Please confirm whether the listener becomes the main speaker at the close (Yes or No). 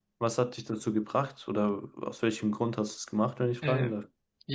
Yes